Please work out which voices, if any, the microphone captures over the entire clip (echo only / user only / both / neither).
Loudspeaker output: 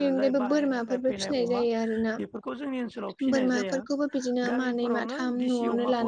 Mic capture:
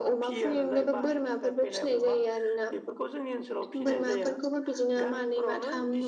echo only